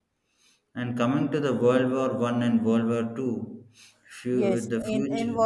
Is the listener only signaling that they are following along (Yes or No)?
No